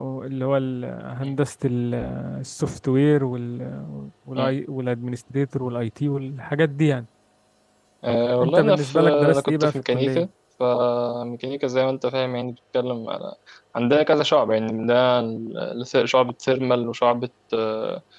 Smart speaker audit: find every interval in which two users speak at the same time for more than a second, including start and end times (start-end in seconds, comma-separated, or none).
8.4-10.2